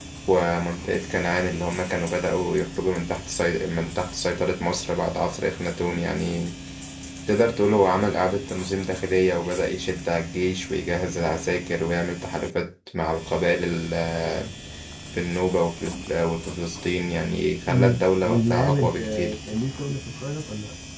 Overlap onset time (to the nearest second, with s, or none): 18 s